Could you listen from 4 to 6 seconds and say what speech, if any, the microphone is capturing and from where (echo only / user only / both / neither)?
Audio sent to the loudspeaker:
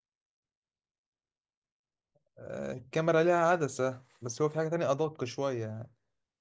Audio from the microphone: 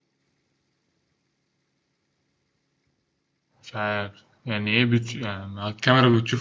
user only